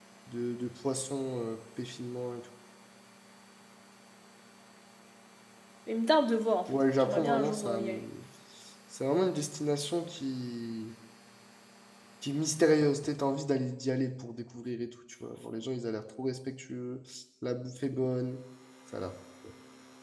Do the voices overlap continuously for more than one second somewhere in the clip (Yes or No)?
Yes